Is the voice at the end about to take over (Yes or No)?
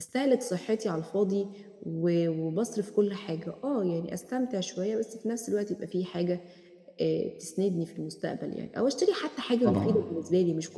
No